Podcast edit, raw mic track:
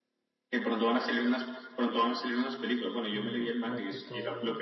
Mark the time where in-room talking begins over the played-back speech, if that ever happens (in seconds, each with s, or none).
3.1 s